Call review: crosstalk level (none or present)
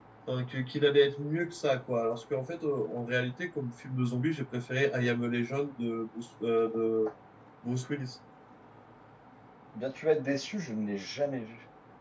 none